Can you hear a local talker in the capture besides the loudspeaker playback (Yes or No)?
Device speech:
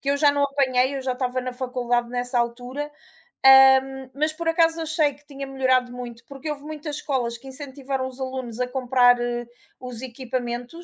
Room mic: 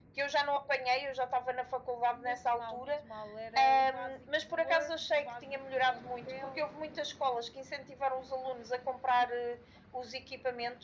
Yes